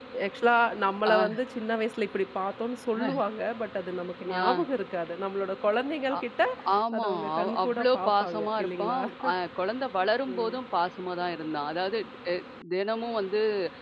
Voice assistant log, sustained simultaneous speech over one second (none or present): present